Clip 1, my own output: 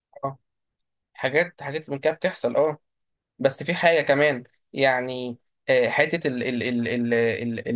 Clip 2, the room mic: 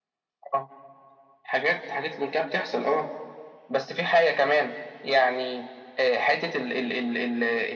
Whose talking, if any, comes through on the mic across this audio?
echo only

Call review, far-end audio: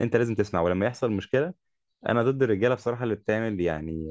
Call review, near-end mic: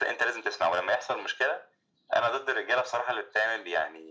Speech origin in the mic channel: echo only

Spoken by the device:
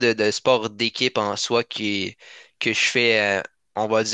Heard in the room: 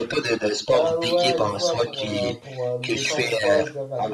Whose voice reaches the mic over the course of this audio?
both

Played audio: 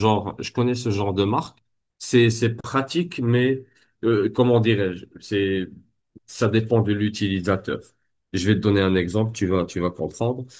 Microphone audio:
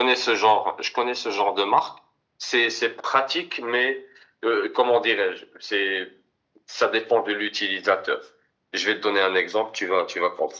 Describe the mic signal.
echo only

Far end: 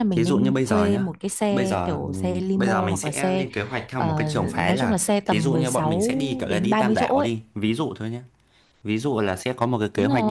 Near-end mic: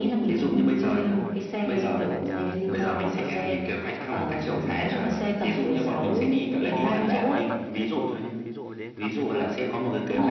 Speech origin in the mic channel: both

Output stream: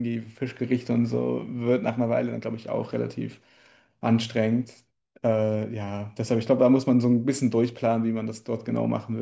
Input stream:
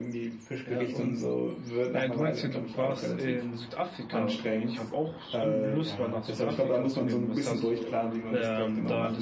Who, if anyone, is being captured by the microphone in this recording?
both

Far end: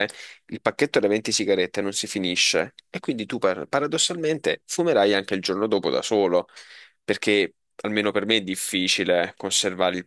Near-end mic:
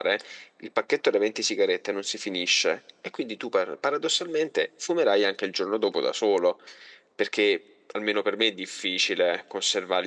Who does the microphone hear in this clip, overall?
echo only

